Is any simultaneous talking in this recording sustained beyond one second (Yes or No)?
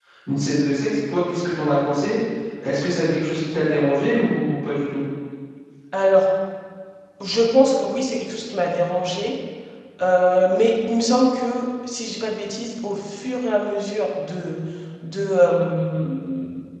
No